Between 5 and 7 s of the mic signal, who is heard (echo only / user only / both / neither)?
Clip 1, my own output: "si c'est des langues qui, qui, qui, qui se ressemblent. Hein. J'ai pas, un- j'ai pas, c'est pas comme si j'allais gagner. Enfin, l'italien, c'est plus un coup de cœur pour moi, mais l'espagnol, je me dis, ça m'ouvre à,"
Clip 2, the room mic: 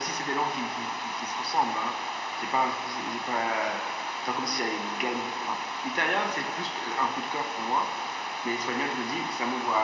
echo only